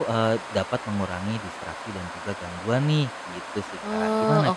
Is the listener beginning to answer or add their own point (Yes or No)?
Yes